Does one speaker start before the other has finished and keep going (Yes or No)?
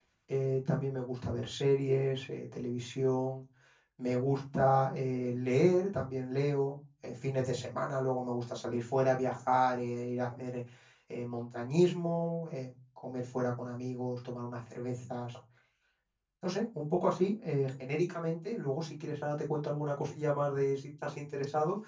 No